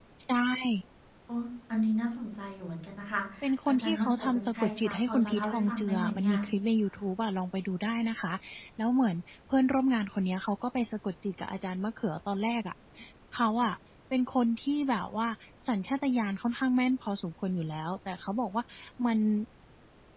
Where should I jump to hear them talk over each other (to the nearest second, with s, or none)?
4 s